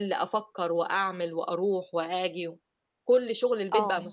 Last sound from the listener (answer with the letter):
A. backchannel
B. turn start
A